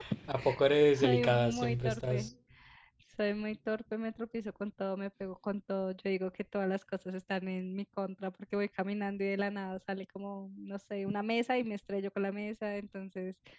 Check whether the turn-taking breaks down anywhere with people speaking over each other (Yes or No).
Yes